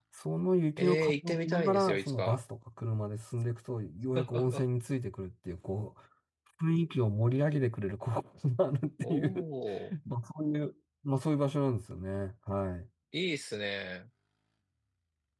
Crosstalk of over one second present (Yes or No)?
Yes